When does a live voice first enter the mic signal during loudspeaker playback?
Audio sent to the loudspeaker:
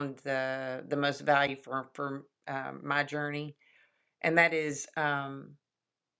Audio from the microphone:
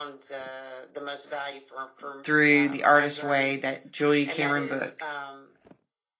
2 s

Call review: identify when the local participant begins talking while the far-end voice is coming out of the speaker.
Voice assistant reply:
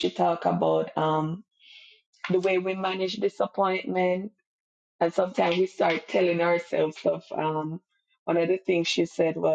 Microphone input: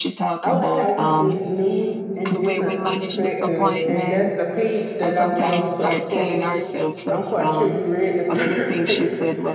0 s

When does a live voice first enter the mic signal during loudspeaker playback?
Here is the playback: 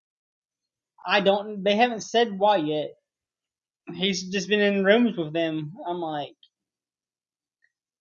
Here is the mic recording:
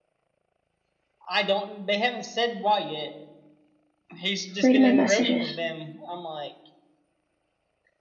5 s

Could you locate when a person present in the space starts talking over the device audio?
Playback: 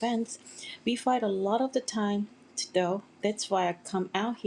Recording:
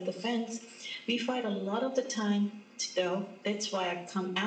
none

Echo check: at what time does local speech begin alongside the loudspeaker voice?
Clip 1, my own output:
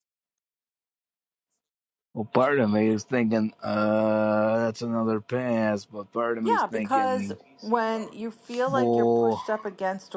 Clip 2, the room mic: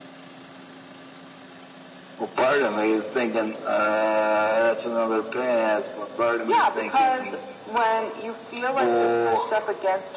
none

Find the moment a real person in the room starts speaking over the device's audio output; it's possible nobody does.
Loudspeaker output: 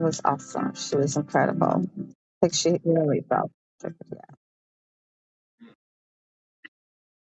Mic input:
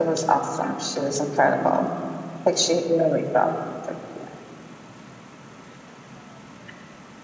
none

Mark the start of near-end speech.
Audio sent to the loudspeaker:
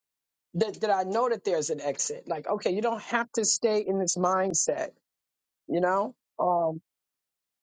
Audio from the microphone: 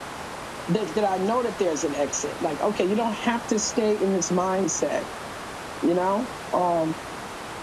none

